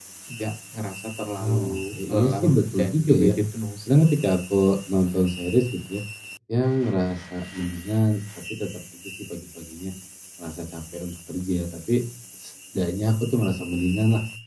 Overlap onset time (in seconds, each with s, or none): 1.4 s